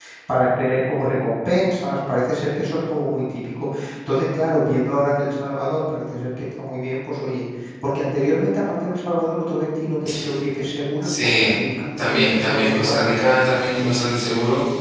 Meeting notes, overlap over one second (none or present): present